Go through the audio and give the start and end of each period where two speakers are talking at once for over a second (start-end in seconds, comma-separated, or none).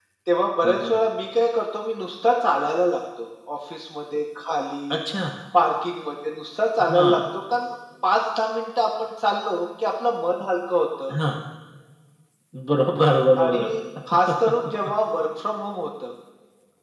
none